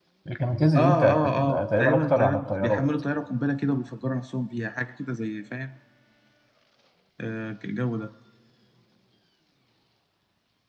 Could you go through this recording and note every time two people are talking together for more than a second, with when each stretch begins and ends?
0.8-2.8

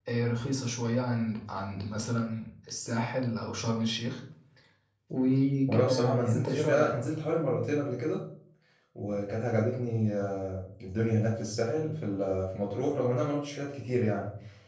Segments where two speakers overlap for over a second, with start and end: 5.7-6.9

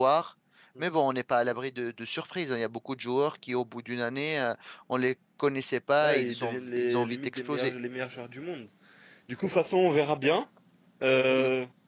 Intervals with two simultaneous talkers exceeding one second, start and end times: 6.0-7.7

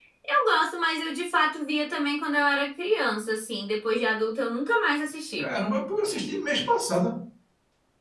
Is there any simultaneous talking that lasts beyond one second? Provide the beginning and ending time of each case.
none

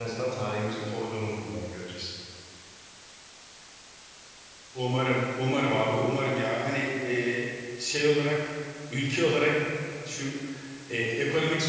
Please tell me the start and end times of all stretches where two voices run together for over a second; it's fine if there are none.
none

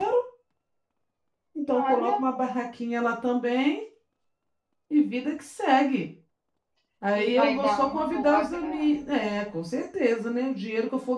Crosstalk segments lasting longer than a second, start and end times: 7.1-9.1

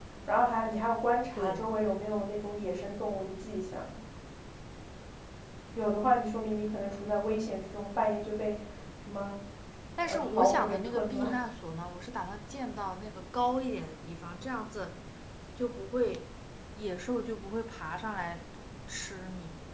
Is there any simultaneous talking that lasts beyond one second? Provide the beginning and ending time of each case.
10.0-11.2

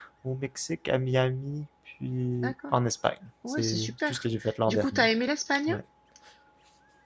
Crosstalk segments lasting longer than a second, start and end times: 3.5-5.1

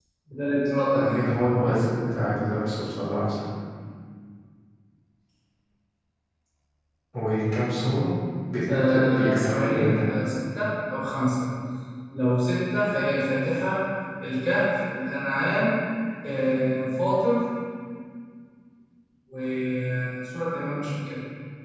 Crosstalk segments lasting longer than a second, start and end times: 8.7-10.1

